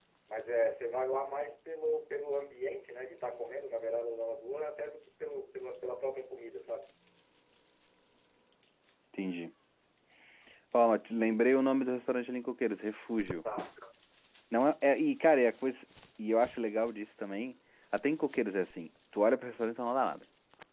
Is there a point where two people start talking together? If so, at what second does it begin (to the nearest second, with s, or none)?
none